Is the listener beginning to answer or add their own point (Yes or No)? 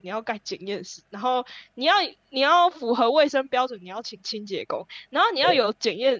No